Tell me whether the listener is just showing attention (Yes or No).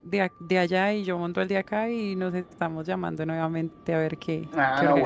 No